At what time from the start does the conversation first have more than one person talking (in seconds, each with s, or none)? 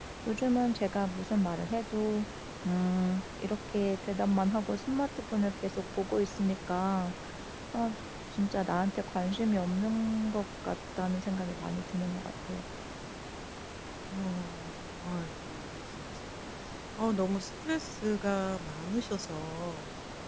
none